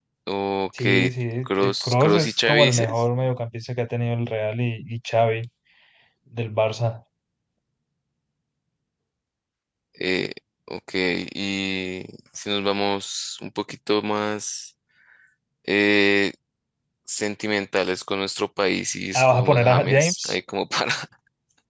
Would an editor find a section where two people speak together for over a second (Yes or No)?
Yes